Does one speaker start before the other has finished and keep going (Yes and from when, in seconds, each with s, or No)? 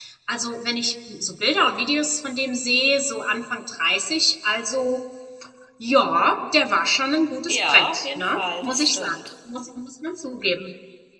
Yes, from 7.5 s